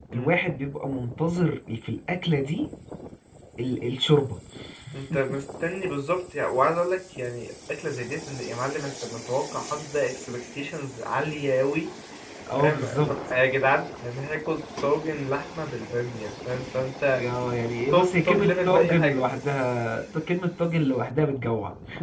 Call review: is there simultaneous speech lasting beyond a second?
Yes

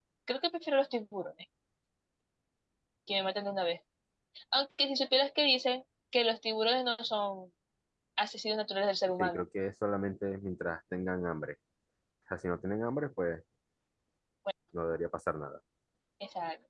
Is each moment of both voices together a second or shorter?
Yes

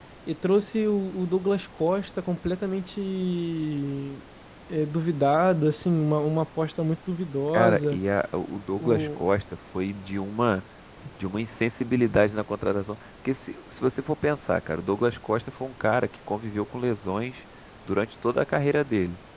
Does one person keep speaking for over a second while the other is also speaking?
No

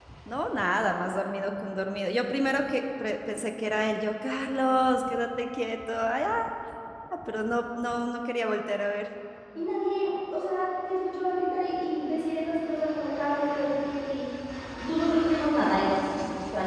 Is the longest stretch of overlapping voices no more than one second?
Yes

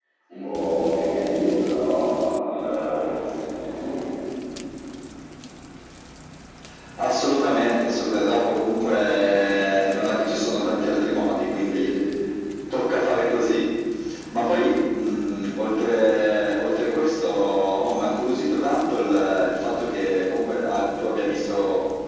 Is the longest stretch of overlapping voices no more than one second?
Yes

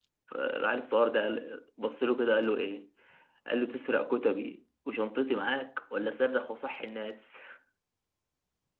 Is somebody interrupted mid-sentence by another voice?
No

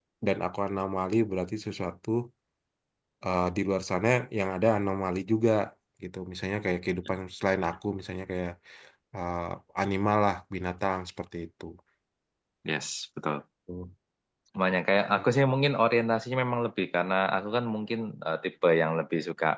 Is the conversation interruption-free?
Yes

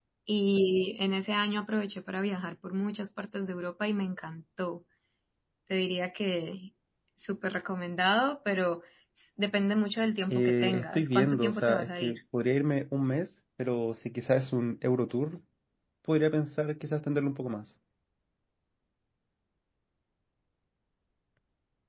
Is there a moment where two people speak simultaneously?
Yes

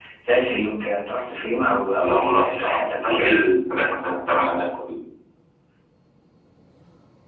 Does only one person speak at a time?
No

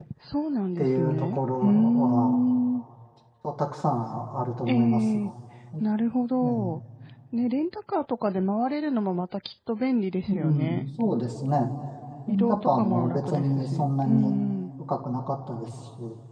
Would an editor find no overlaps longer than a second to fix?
No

